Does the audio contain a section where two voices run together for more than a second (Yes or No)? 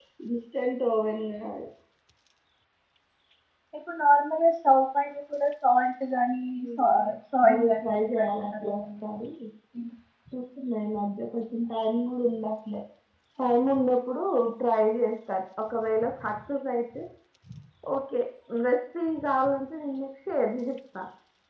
Yes